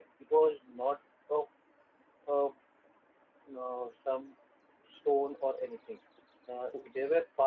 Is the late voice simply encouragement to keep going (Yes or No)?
Yes